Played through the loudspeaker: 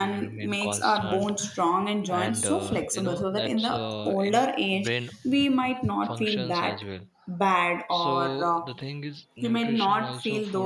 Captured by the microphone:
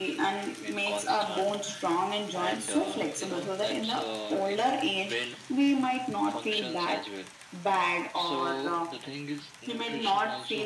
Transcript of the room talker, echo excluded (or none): none